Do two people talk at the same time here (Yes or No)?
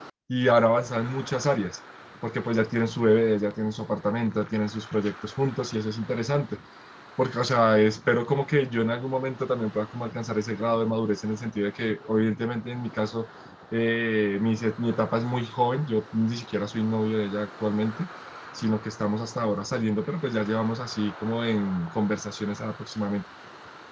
No